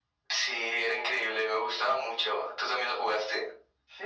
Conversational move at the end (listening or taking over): taking over